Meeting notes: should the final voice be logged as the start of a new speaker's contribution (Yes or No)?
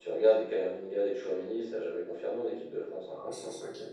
Yes